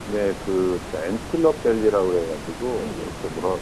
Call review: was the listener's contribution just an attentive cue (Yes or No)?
Yes